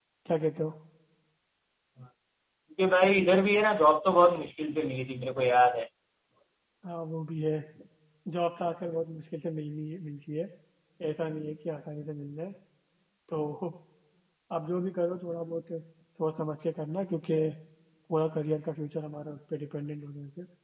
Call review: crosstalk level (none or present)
none